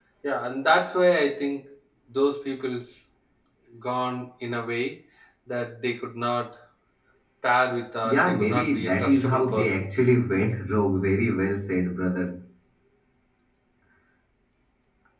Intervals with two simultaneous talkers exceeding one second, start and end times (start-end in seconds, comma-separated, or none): 8.0-9.9